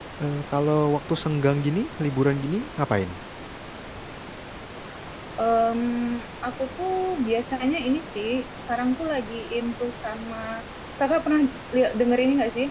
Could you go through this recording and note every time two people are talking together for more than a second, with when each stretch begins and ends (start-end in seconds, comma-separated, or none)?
none